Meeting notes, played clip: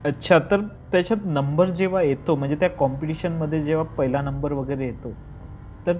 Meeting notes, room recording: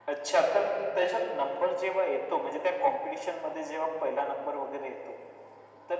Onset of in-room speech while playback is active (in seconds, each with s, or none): none